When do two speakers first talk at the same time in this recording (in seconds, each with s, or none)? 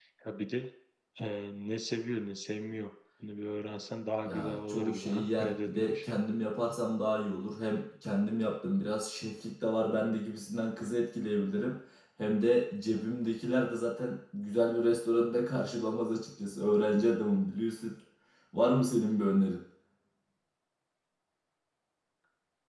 4.2 s